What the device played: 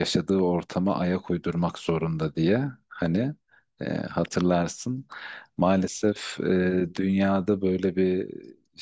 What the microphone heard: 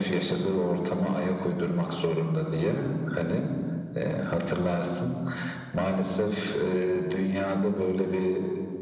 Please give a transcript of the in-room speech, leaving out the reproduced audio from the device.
none

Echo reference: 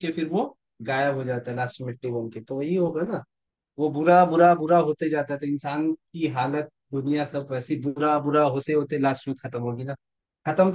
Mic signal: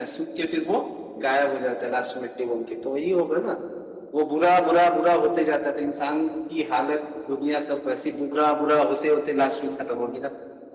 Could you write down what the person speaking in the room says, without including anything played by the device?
none

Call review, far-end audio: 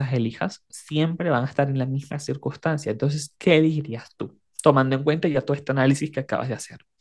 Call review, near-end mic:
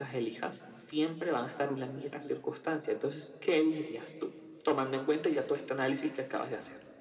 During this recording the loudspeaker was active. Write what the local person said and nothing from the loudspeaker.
No, sé.

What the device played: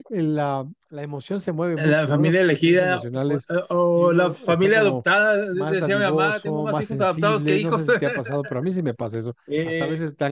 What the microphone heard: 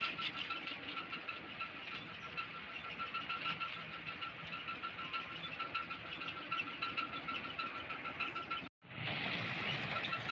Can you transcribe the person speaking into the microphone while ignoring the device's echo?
none

